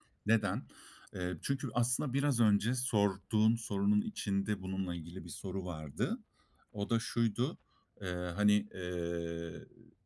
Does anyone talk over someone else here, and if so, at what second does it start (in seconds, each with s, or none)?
none